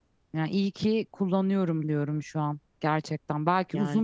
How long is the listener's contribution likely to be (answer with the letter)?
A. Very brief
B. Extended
A